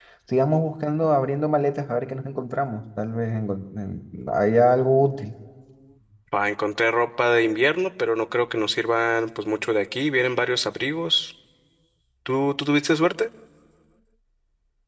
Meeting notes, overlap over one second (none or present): none